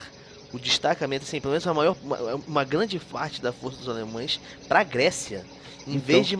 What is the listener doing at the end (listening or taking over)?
listening